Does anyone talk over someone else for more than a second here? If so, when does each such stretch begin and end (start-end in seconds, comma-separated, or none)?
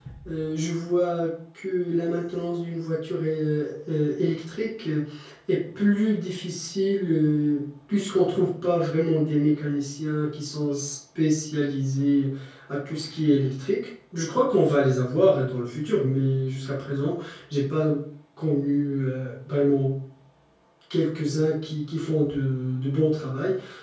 none